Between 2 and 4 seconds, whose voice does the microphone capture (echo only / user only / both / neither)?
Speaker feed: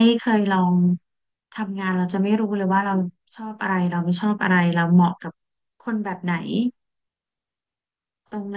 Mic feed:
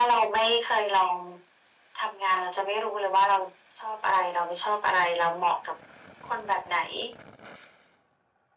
echo only